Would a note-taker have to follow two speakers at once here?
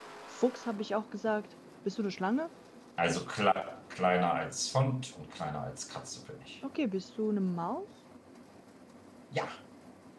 No

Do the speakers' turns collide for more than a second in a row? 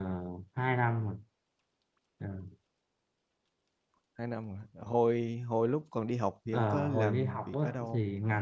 Yes, from 6.5 s

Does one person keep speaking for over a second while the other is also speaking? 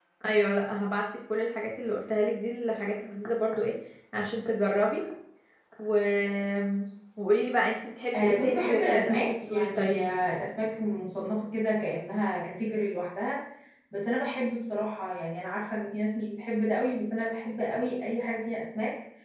Yes, from 8.1 s

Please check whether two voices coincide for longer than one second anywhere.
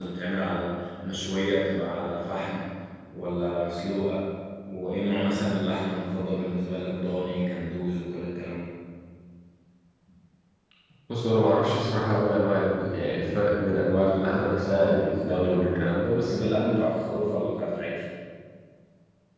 Yes, from 14.2 s

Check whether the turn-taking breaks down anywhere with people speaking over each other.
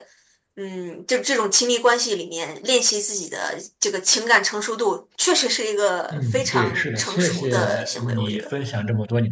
Yes, from 6.1 s

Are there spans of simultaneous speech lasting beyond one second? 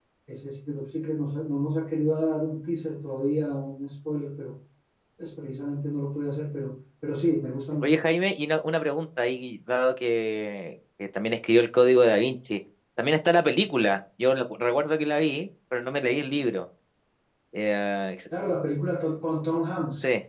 No

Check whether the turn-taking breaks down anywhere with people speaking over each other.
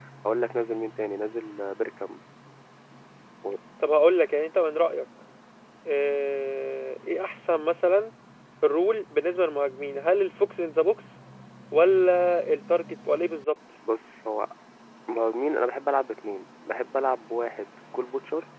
No

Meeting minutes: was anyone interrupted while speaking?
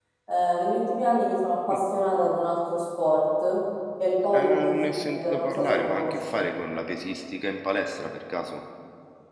Yes, from 4.3 s

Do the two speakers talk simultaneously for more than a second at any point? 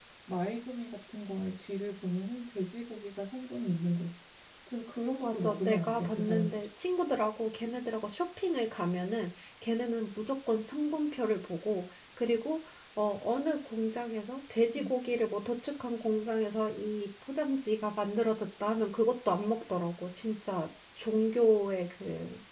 Yes, from 5.2 s

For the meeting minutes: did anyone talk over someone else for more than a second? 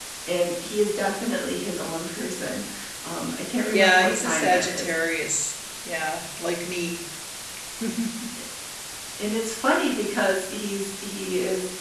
Yes, from 3.7 s

